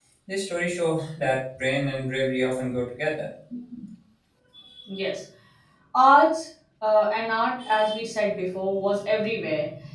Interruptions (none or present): none